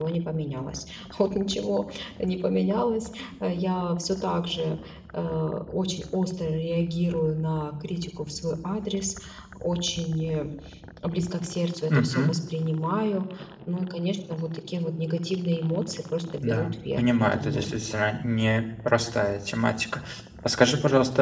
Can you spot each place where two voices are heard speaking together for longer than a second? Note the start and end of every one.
16.4-17.7

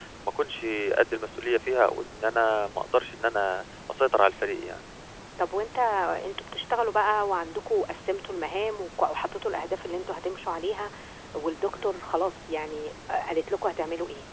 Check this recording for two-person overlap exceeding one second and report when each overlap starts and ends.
none

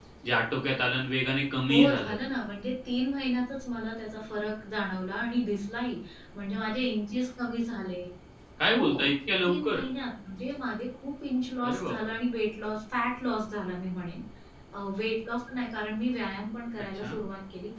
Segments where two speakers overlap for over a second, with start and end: none

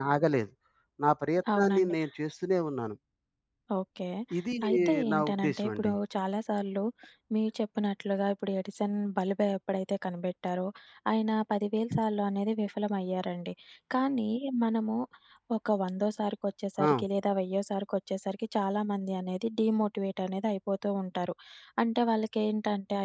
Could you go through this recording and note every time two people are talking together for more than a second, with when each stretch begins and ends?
4.7-5.9

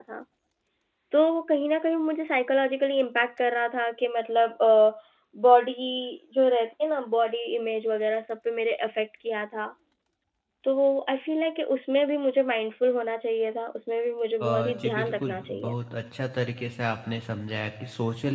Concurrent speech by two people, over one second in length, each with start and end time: 14.4-15.7

